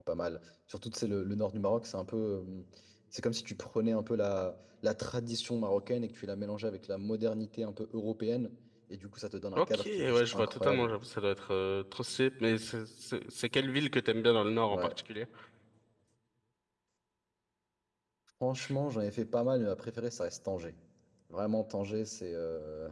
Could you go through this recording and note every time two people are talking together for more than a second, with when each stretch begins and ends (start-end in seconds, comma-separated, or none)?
9.6-10.9